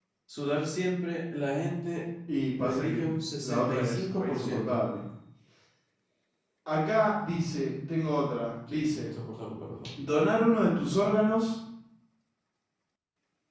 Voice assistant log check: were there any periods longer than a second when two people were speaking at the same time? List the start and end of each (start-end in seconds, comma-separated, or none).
3.4-4.8